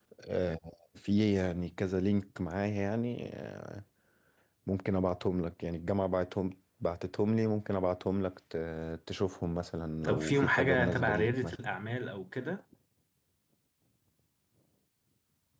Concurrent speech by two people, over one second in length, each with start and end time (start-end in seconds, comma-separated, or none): 10.1-11.5